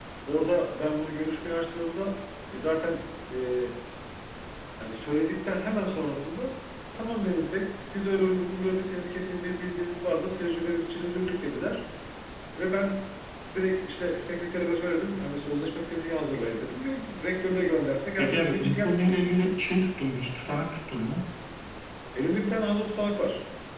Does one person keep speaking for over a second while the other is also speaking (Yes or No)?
Yes